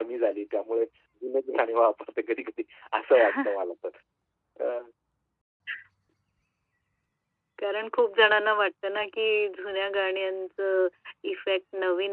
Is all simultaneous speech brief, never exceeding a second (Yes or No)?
Yes